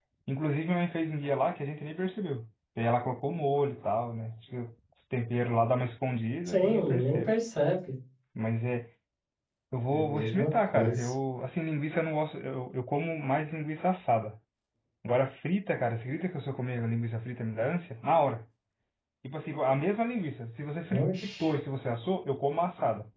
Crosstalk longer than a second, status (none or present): present